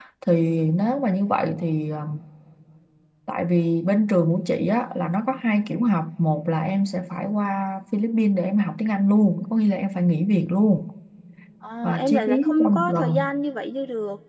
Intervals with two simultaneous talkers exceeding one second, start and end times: 11.8-13.3

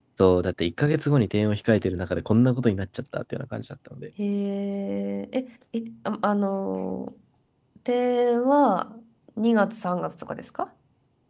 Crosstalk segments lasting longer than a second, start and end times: none

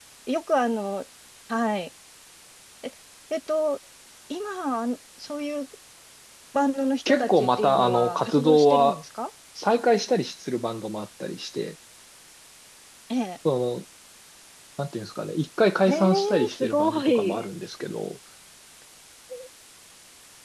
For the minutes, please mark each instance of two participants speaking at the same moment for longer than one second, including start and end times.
7.0-9.0, 15.9-17.4

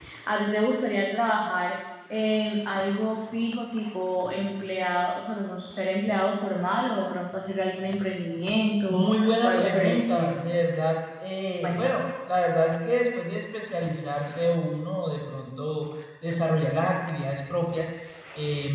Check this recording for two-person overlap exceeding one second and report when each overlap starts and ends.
8.9-10.4

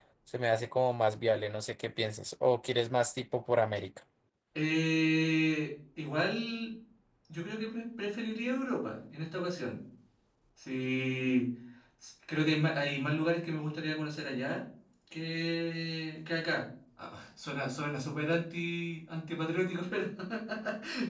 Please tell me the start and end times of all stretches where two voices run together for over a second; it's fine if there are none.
none

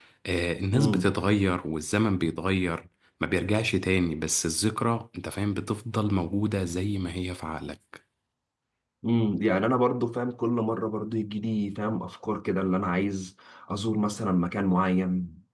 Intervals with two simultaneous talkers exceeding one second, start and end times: none

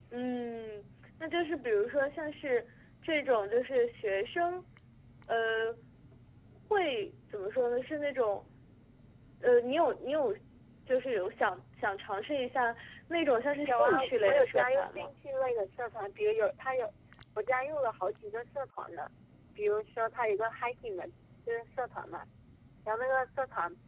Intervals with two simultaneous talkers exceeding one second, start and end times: 13.6-15.1

